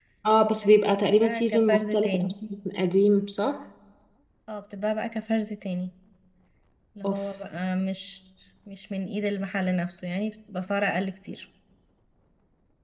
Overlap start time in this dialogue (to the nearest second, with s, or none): 1 s